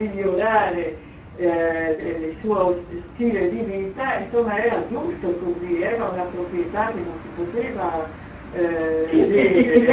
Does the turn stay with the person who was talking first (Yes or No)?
No